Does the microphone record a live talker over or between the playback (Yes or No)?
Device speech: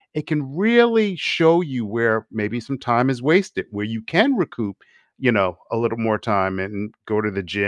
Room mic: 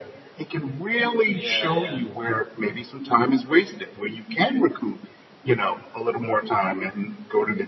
Yes